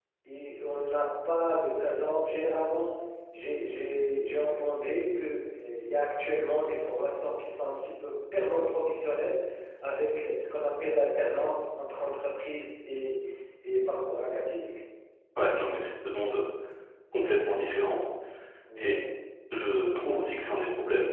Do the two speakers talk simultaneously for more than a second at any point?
No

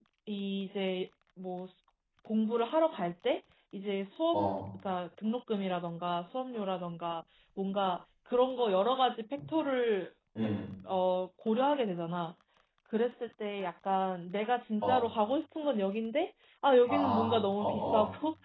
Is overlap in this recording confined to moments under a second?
No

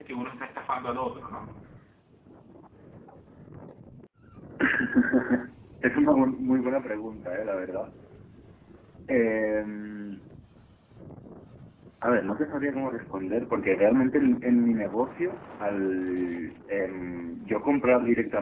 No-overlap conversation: Yes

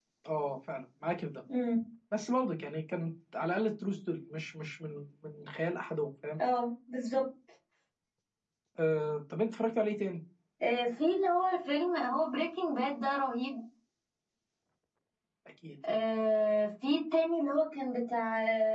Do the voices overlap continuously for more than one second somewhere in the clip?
No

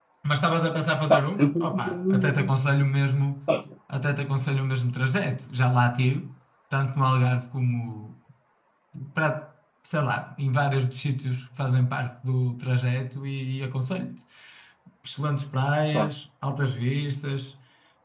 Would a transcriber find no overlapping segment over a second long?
No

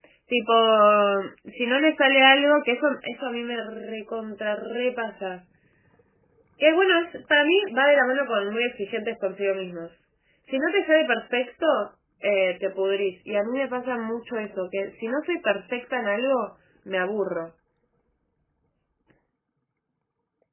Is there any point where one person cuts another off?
No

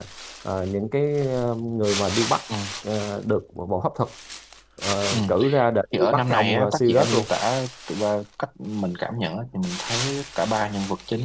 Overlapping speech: Yes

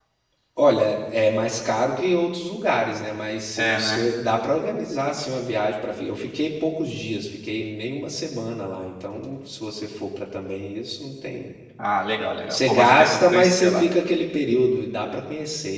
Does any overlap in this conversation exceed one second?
Yes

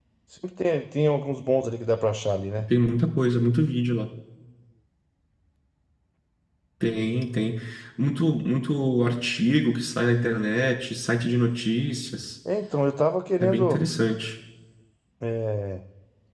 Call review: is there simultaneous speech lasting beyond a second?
No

